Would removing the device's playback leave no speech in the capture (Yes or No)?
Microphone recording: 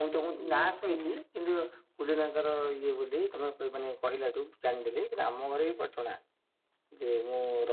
No